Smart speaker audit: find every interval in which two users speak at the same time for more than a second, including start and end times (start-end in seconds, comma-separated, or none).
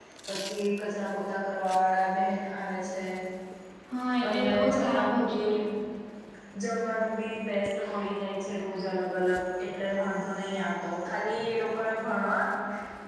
4.3-5.5